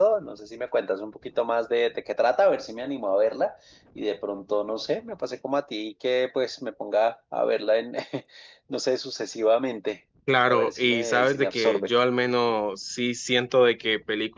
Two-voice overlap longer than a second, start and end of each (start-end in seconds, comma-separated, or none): 10.5-11.9